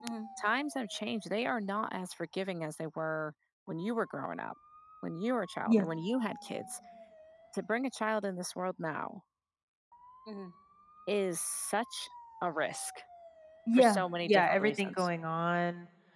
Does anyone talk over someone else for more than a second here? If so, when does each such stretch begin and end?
13.7-15.1

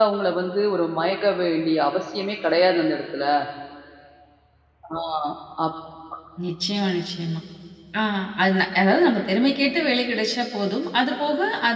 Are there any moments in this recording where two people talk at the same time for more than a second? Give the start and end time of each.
none

